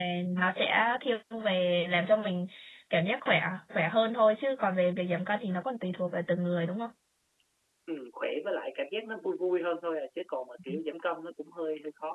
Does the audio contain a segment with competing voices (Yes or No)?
No